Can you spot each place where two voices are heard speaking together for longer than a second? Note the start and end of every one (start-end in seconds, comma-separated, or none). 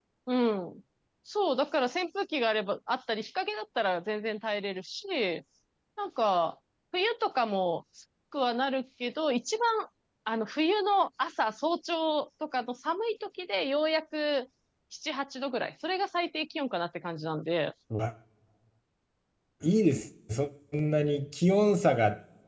none